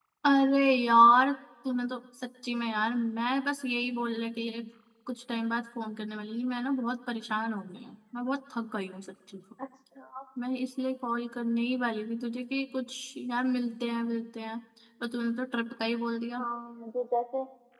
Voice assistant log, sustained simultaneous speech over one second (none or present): none